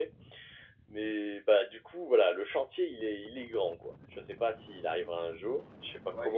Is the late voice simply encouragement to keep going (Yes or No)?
No